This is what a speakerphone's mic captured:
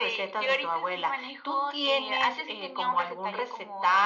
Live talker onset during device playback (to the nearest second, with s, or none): none